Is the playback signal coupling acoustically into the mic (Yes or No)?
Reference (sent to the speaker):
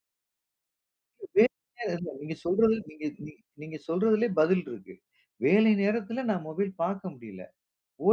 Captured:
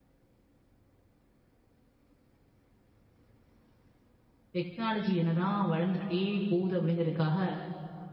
No